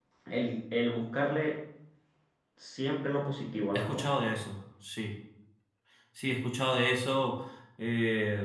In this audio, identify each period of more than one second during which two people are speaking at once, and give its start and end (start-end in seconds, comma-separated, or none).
none